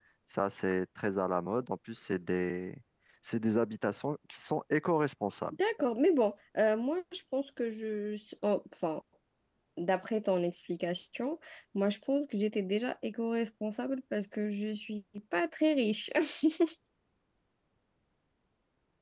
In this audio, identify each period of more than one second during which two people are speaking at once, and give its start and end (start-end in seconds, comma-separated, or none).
none